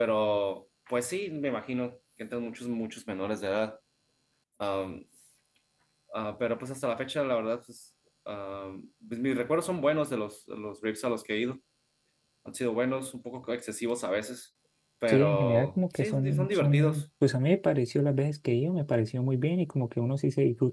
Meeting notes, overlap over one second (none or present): present